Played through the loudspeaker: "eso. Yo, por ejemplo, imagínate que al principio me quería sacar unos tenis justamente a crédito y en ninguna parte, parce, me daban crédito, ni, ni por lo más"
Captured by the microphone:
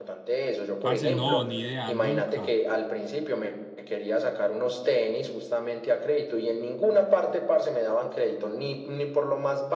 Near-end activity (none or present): present